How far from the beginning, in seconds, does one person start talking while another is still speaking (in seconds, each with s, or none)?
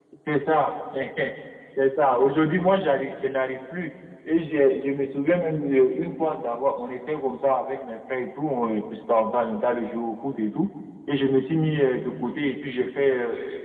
none